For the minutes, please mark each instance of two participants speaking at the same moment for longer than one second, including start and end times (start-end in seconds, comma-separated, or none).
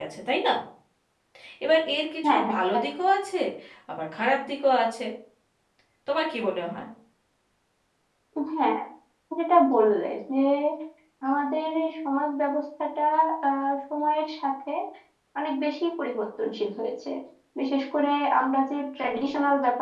none